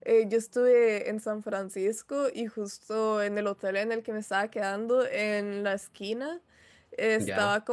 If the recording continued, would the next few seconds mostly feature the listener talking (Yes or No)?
No